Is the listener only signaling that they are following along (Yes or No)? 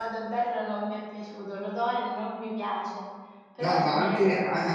No